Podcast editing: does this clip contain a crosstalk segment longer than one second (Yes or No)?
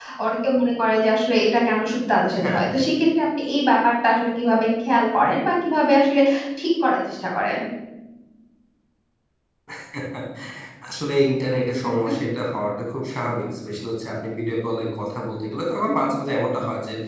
No